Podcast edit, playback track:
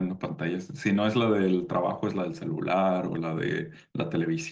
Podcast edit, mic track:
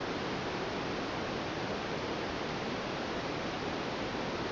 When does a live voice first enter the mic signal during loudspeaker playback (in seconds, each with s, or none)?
none